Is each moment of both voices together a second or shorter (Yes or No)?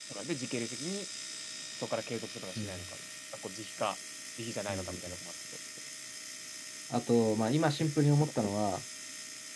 Yes